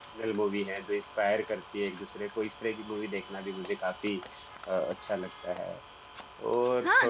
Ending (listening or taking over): taking over